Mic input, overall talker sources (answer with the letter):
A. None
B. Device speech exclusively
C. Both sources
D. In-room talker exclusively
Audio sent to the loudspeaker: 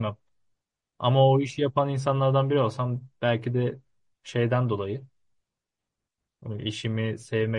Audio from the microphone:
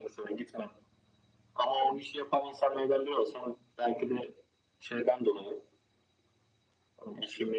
B